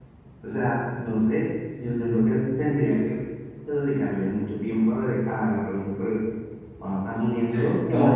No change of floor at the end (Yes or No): Yes